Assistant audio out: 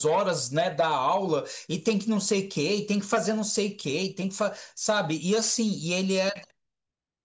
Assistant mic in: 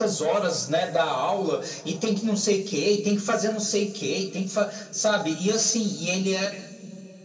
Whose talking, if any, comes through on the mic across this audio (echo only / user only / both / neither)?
echo only